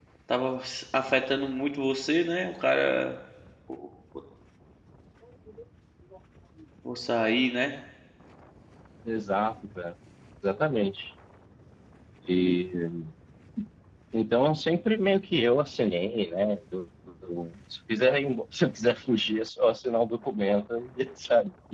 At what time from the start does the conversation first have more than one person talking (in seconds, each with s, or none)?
none